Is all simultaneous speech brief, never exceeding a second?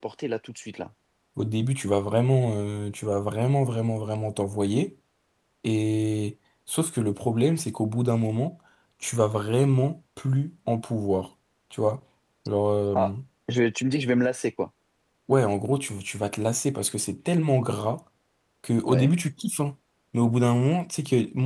Yes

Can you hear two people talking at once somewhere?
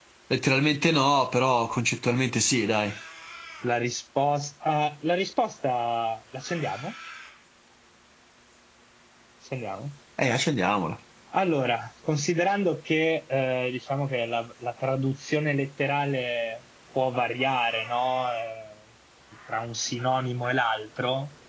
No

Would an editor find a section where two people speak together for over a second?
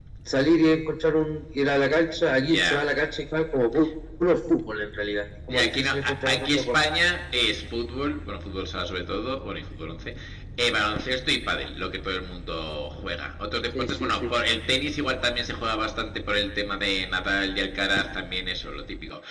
Yes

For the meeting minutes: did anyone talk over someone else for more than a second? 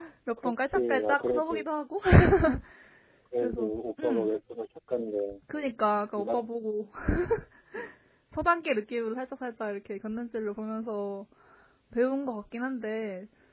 Yes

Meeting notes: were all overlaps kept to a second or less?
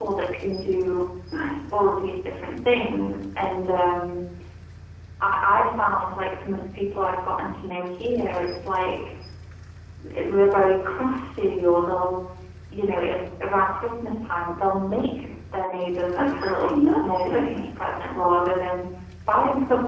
No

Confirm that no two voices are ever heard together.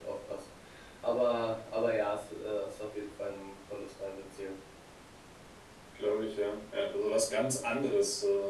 Yes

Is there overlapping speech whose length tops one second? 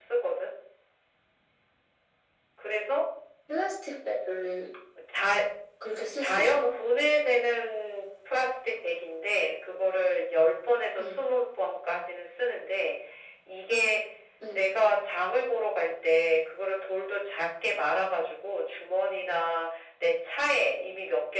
No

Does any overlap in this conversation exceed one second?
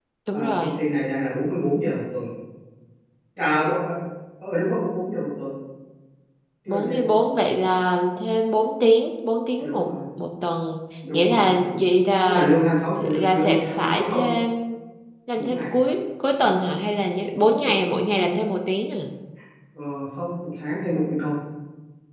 Yes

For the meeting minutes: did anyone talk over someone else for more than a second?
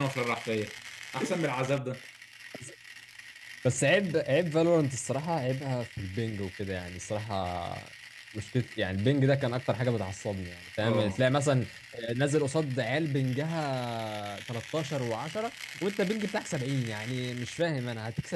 No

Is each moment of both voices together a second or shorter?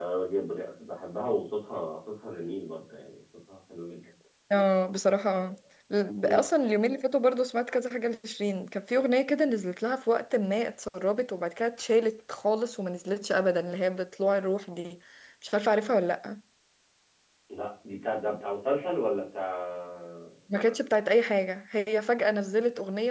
Yes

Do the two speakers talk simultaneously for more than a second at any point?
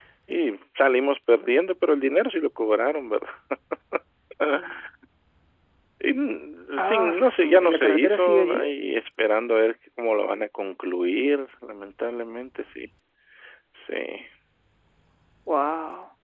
Yes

